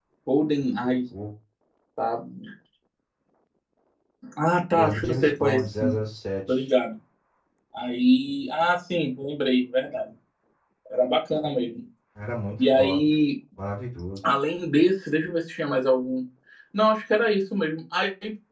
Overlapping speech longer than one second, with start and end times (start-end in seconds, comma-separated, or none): 4.8-6.0